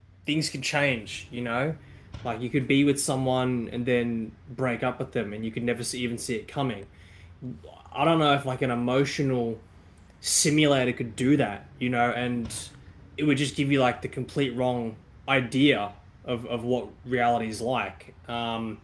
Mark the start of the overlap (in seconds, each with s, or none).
none